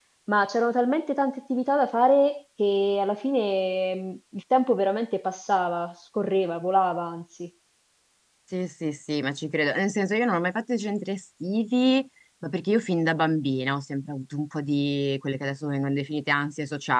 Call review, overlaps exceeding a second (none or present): none